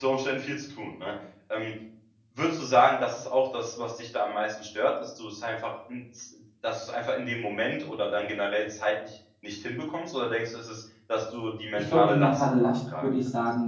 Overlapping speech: Yes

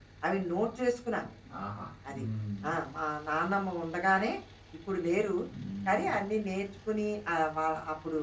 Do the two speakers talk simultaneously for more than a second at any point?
No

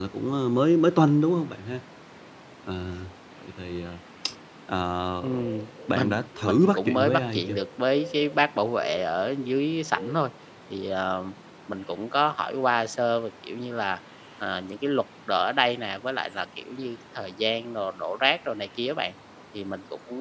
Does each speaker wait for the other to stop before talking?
No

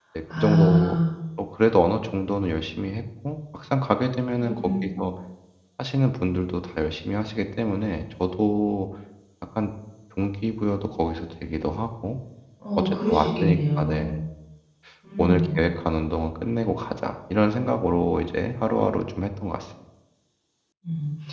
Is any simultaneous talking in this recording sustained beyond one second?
Yes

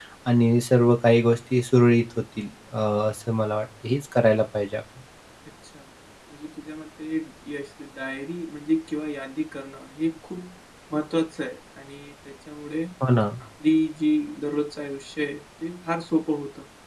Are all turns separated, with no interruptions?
Yes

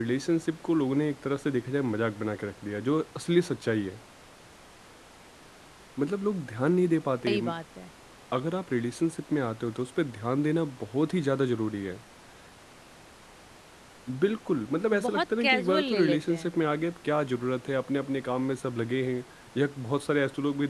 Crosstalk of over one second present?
Yes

